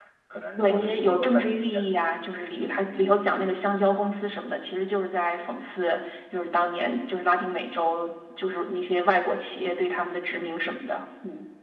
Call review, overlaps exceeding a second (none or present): present